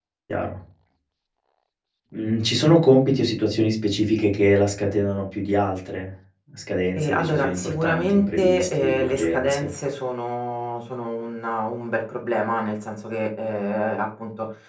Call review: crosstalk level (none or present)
present